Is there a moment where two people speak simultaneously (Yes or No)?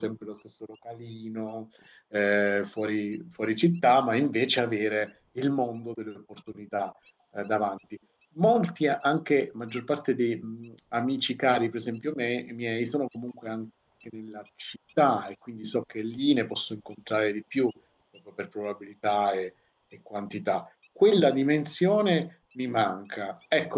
No